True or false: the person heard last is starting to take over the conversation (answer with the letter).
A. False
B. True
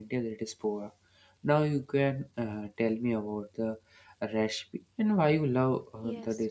B